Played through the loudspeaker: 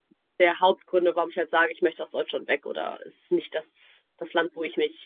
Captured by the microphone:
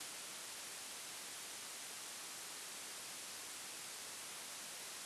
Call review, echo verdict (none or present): none